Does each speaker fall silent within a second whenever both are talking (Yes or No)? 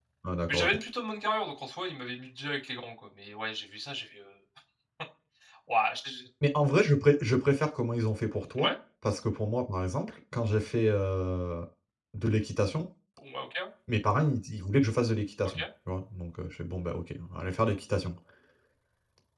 Yes